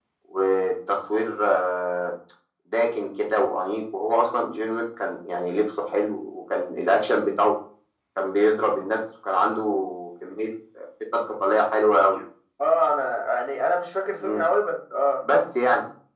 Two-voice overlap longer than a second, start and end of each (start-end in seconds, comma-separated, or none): none